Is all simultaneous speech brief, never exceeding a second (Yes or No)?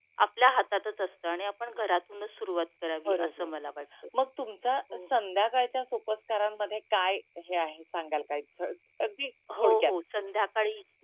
Yes